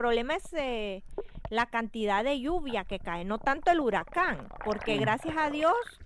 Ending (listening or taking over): listening